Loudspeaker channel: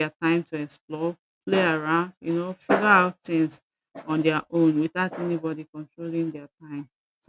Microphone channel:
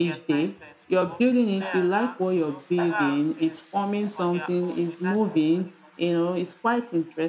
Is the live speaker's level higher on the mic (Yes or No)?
Yes